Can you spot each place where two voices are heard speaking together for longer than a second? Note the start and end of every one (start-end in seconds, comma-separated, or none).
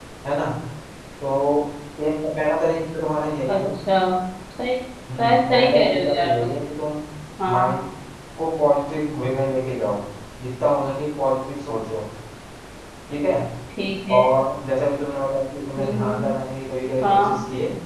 5.2-6.5